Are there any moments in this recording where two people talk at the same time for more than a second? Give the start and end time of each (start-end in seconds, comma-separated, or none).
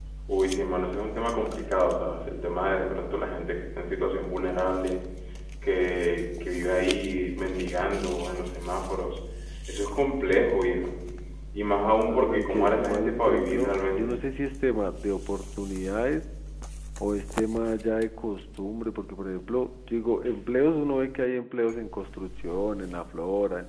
12.0-14.2